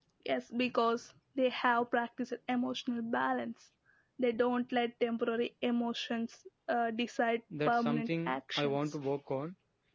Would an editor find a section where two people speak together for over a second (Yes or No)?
Yes